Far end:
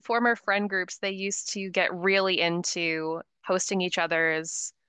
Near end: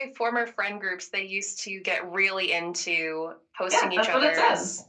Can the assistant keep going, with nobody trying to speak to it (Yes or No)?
No